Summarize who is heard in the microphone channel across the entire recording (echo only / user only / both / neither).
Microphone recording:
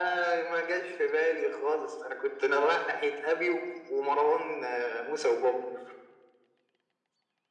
echo only